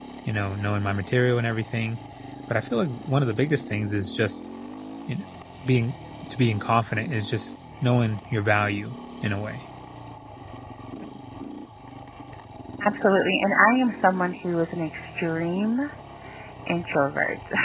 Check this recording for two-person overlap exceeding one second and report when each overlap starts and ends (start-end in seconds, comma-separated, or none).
none